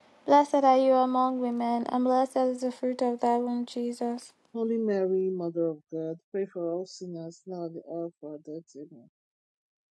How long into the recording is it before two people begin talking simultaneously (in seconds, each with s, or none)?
none